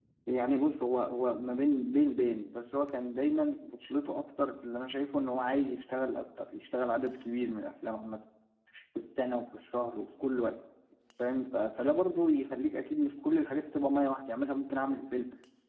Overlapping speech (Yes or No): No